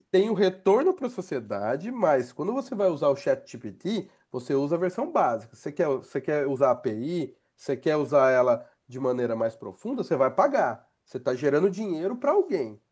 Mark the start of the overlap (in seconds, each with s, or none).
none